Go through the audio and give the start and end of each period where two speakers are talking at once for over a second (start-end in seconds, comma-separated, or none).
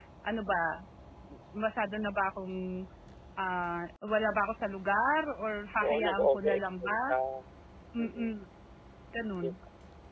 5.8-7.1